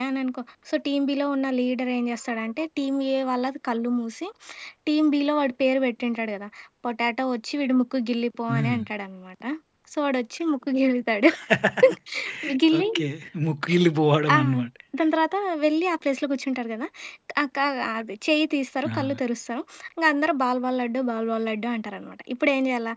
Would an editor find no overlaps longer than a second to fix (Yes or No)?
Yes